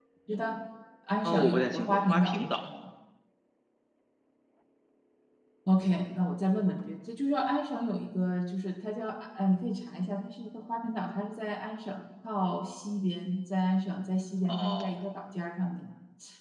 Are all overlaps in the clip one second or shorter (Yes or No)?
No